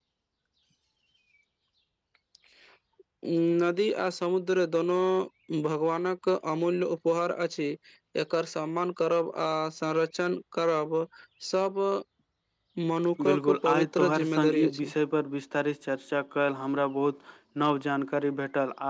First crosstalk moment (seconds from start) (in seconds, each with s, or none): 13.3 s